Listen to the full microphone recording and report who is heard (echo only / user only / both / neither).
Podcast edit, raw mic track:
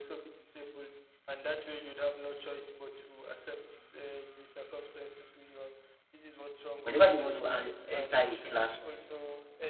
both